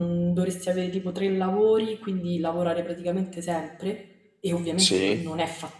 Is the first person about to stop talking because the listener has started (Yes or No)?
No